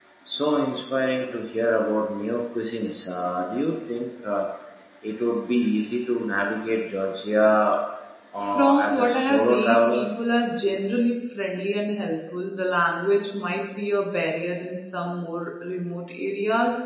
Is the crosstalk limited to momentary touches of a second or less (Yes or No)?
No